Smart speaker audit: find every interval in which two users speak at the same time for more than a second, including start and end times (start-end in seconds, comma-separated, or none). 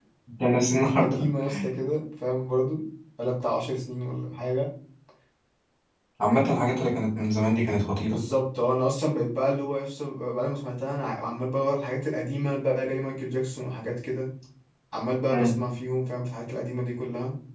none